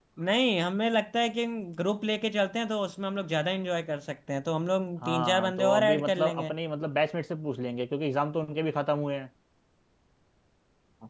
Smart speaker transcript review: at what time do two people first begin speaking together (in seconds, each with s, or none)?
5.0 s